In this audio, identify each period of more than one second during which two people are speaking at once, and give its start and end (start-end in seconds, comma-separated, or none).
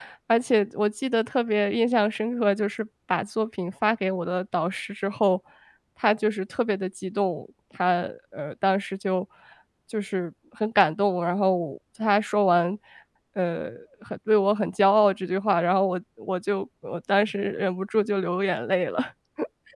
none